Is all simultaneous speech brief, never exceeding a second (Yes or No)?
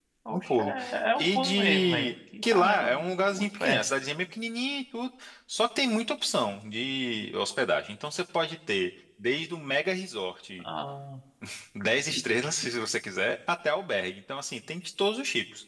No